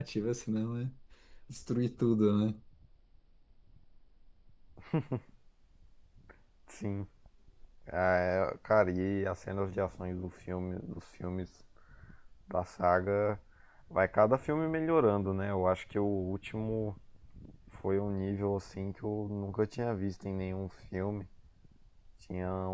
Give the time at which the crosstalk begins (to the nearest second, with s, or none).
none